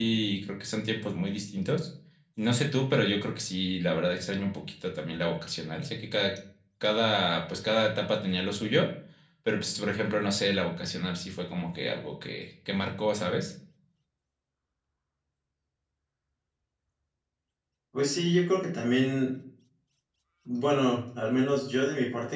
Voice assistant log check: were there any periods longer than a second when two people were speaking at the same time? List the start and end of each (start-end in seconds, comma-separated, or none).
none